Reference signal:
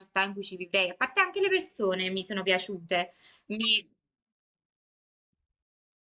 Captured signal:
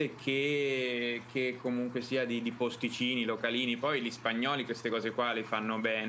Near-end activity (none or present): present